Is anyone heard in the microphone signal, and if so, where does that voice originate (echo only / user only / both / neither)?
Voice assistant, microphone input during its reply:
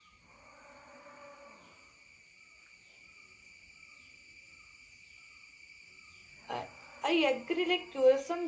user only